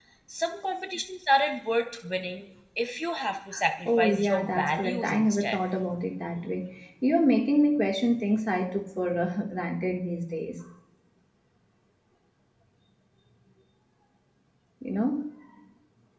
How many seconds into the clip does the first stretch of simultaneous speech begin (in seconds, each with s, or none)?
3.9 s